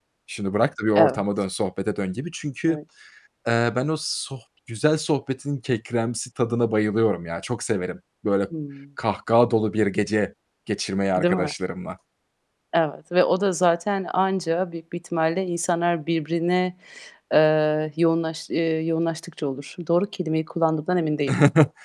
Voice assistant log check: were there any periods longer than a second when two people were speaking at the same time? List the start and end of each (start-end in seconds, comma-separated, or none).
none